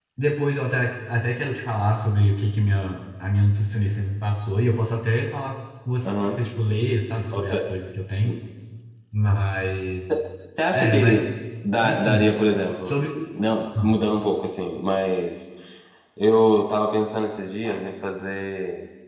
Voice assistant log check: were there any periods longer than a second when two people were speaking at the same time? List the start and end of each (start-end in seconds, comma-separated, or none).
none